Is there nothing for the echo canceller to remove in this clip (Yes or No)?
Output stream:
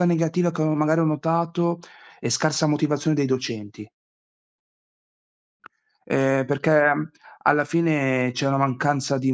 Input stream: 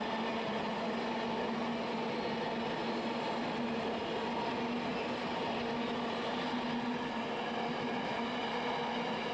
Yes